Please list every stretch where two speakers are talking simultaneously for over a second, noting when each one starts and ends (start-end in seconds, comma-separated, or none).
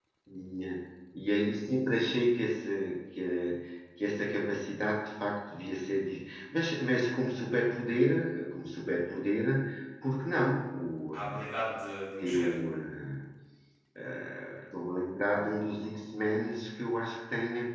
none